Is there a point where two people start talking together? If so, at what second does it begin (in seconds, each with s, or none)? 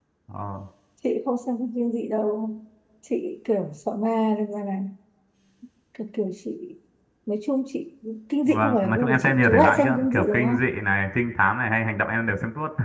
8.5 s